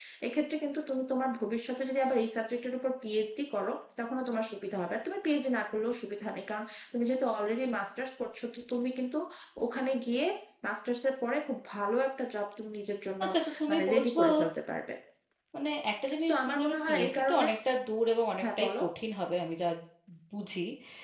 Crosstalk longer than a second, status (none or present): present